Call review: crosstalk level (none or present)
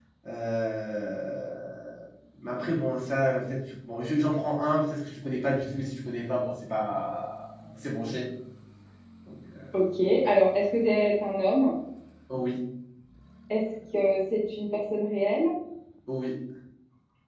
none